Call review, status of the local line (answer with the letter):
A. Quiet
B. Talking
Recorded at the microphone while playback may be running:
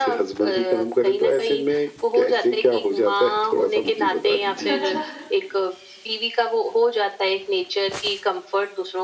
B